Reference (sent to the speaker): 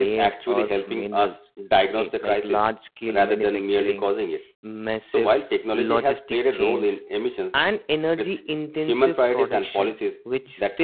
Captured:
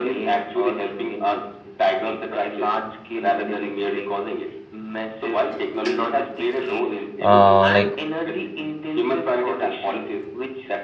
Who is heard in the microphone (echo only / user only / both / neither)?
both